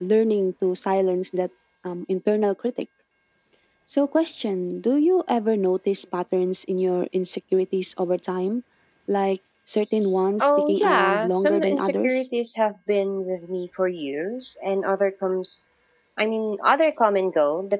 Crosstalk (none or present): present